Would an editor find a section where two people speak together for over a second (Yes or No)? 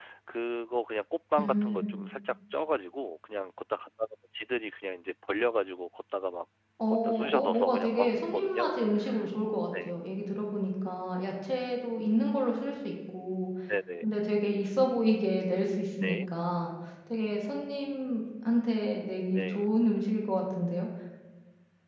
Yes